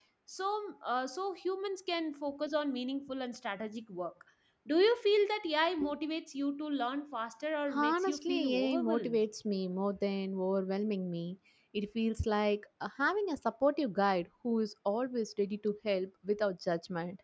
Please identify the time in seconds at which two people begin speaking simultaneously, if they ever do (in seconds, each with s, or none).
7.7 s